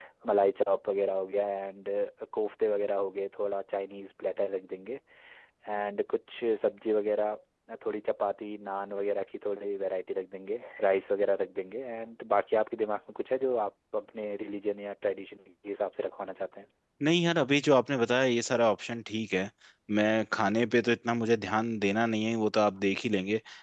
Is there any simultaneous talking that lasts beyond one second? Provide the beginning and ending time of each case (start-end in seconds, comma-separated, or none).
none